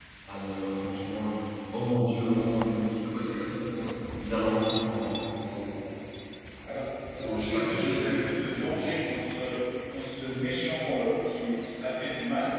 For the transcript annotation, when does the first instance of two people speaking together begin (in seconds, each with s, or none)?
7.1 s